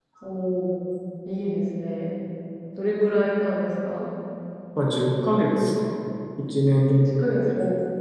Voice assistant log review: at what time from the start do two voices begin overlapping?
none

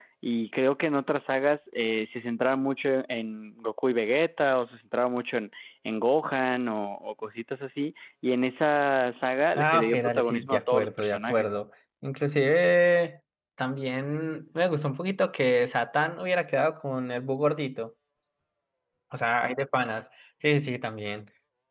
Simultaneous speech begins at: 9.6 s

